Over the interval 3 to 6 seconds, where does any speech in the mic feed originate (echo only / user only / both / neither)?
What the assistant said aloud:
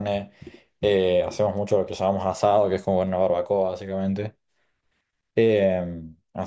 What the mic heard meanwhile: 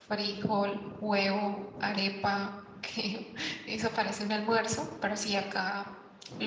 user only